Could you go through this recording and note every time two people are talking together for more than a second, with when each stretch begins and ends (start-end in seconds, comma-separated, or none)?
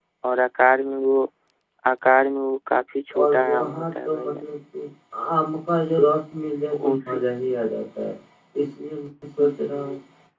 3.2-4.4